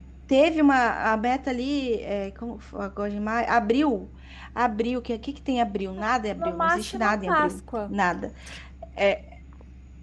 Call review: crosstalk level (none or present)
present